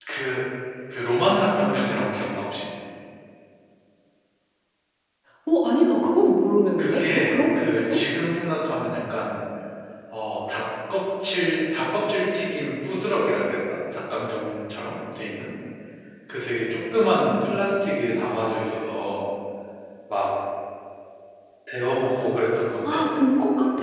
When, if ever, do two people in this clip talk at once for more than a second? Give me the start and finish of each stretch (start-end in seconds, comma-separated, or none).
6.8-8.0